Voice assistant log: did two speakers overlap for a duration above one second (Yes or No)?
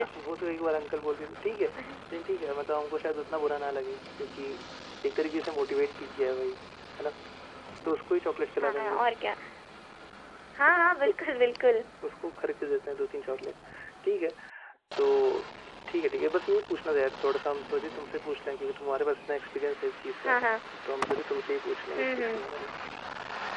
No